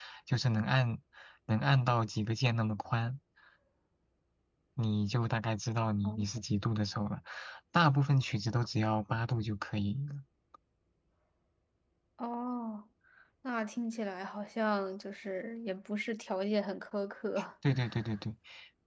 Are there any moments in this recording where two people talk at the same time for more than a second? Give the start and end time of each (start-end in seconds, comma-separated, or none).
none